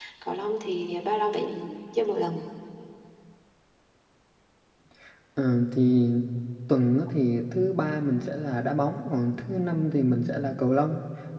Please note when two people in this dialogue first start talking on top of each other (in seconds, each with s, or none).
none